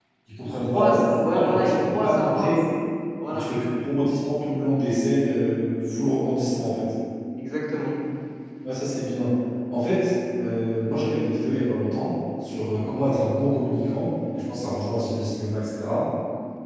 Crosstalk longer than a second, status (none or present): present